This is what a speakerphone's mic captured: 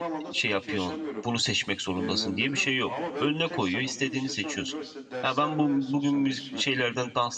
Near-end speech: present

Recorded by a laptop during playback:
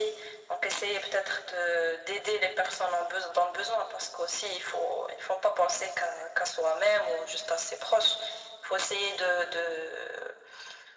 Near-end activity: none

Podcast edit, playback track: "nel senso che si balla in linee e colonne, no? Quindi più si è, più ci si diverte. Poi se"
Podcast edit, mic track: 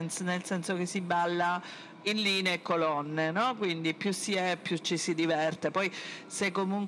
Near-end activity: none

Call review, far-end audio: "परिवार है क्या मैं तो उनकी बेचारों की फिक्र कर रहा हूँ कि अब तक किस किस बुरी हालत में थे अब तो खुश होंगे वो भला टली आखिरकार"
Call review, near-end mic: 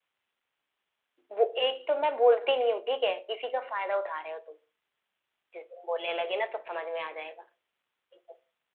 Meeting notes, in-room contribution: present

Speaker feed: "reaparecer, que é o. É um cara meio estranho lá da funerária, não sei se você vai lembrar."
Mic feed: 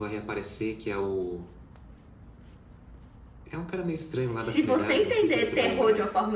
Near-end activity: present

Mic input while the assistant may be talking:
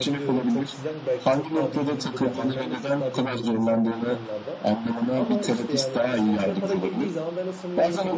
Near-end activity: present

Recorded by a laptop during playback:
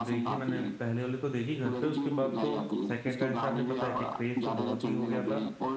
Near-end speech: present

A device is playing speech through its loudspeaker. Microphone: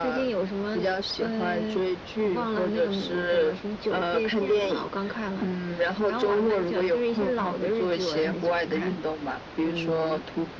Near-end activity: none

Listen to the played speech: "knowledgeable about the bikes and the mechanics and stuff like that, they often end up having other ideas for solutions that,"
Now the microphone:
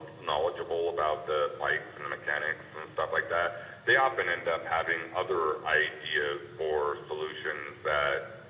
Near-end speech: none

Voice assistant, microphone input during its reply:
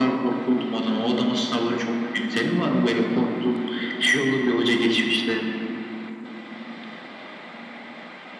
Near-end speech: none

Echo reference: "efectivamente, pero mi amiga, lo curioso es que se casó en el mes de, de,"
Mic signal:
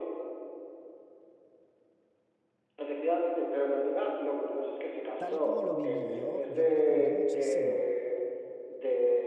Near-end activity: present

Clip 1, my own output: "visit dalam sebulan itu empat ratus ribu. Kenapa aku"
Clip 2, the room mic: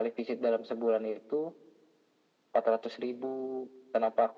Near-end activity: none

